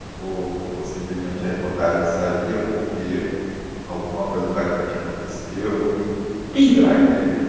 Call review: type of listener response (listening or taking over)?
listening